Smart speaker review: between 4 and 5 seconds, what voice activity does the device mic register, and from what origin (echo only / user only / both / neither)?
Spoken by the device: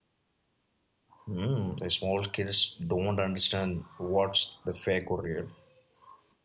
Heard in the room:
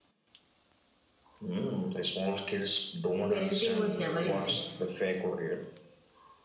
both